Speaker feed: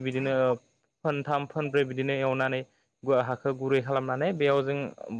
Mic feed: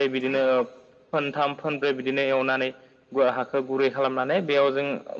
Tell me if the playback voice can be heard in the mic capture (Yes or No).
Yes